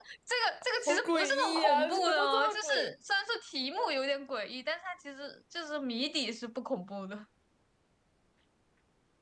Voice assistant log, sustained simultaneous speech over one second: present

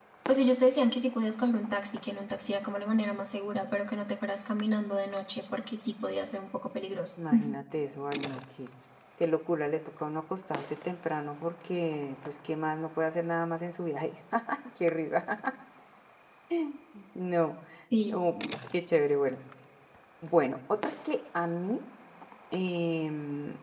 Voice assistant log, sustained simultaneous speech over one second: none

